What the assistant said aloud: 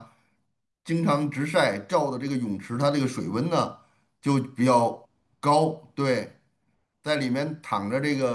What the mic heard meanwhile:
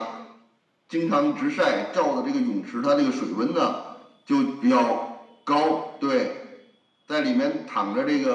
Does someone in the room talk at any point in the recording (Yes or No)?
No